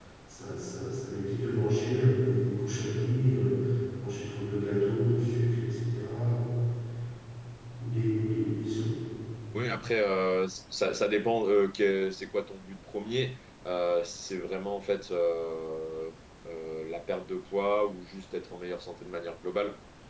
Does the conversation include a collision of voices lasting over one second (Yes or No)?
No